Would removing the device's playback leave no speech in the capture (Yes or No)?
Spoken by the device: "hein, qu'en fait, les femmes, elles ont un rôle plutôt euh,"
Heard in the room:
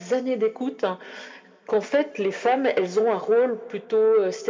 Yes